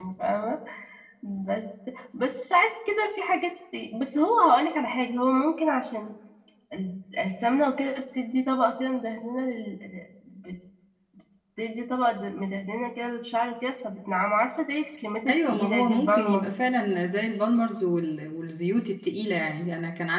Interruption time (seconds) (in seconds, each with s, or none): 15.3 s